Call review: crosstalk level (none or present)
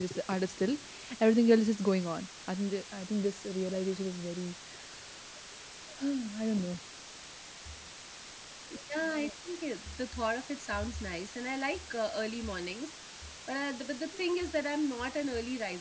none